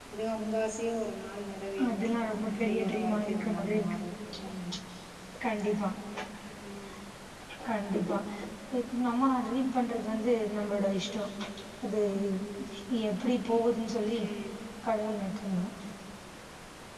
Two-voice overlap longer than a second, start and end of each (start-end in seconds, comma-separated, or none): 2.5-4.0